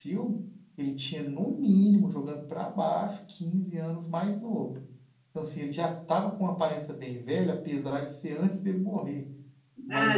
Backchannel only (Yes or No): No